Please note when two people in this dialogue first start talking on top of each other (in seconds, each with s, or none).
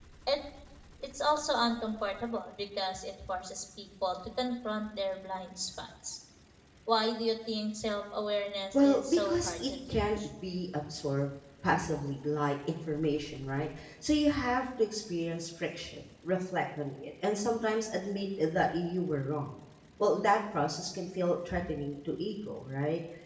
8.7 s